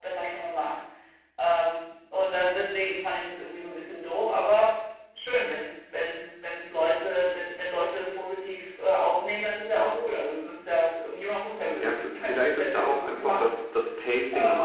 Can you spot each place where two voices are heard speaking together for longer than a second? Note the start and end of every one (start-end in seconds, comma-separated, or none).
11.8-13.6